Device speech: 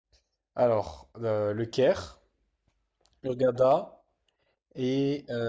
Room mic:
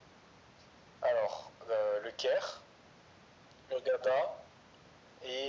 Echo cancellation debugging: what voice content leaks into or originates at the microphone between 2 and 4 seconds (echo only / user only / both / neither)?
echo only